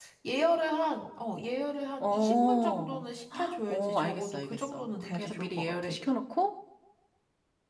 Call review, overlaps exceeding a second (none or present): present